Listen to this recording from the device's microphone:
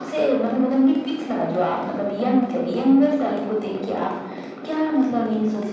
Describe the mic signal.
echo only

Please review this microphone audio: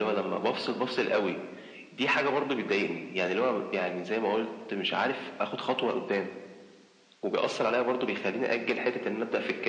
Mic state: echo only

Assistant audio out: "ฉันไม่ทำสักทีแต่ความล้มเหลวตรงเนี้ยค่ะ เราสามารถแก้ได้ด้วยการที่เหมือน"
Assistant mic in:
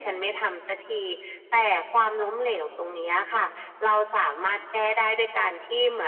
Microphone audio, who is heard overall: echo only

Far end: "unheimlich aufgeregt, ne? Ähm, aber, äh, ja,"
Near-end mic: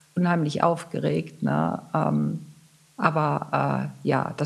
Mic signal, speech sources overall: echo only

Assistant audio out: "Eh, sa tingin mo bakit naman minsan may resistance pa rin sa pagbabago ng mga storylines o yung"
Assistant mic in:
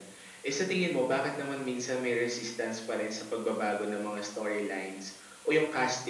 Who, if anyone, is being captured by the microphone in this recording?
echo only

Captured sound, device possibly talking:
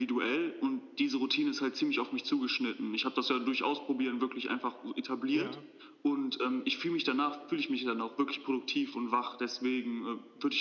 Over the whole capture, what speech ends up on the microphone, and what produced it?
both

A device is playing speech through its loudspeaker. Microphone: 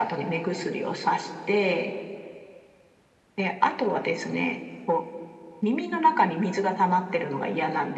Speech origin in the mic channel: echo only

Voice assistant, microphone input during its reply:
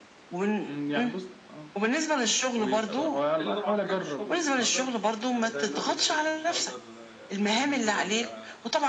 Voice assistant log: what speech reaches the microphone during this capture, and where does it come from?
both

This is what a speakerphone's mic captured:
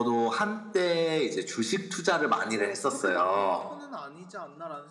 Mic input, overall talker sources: both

